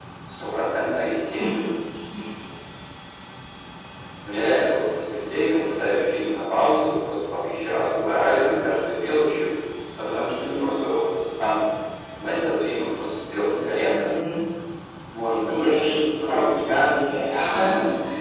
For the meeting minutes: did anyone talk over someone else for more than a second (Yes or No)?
Yes